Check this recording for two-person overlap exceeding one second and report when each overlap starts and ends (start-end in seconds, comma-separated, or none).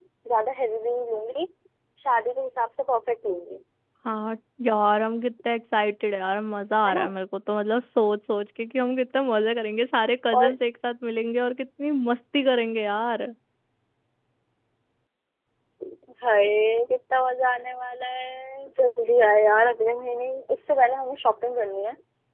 none